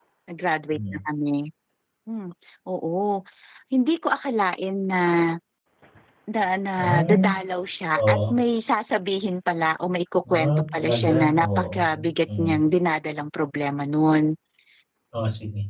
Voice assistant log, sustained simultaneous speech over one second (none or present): present